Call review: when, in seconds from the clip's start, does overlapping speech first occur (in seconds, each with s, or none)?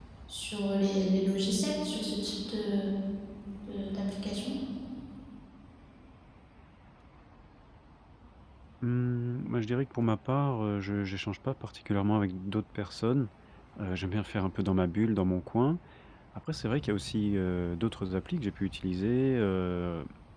none